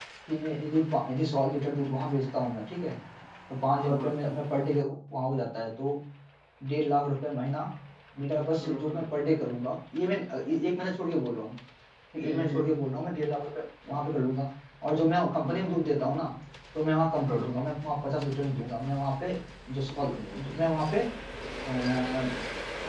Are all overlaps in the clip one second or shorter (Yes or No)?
Yes